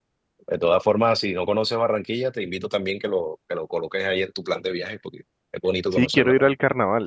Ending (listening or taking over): taking over